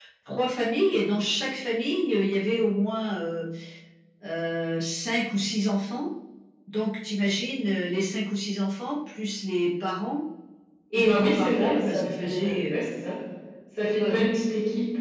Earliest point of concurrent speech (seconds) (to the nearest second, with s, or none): 11 s